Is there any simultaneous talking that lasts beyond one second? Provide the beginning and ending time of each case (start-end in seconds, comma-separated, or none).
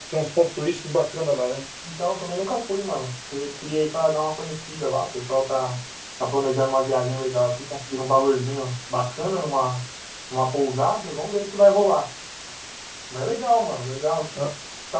none